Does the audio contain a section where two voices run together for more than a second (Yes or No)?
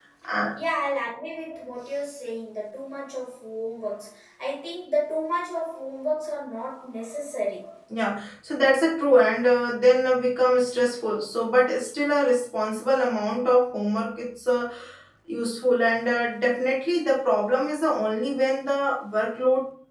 No